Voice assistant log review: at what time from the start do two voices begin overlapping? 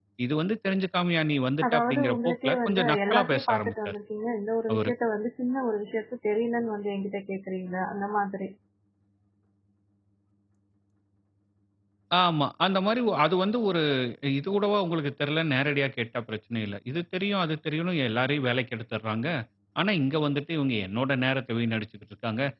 1.6 s

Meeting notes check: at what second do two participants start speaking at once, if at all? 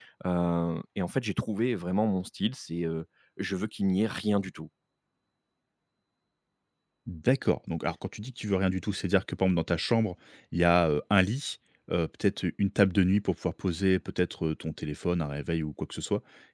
none

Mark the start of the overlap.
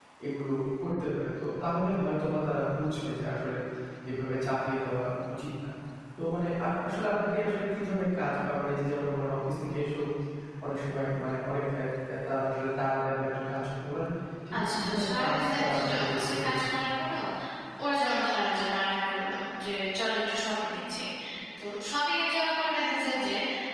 14.5 s

